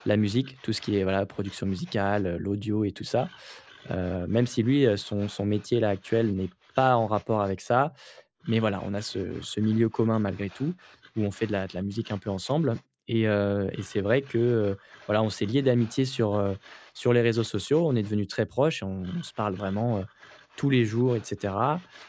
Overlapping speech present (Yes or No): No